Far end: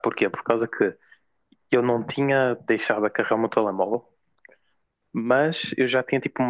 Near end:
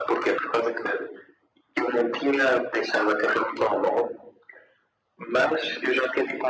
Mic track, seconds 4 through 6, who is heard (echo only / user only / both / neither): echo only